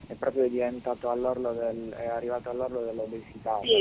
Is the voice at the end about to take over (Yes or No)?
Yes